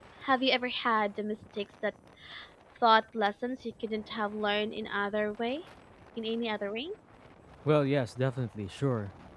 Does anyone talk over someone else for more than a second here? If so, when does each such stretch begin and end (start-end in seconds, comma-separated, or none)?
none